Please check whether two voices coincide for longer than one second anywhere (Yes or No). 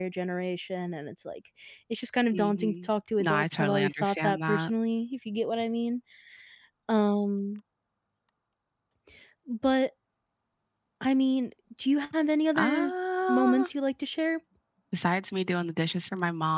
Yes